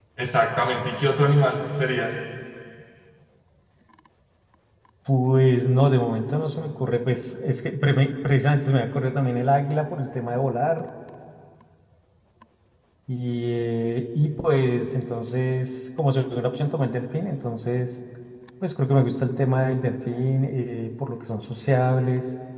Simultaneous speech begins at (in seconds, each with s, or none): none